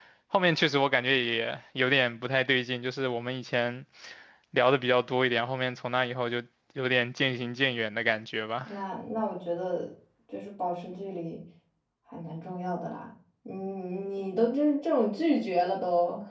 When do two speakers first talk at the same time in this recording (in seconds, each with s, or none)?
none